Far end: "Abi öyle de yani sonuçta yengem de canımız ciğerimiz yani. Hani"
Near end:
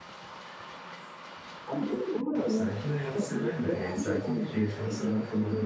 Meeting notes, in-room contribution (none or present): present